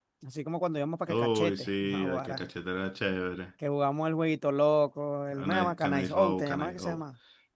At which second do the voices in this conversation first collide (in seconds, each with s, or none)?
1.1 s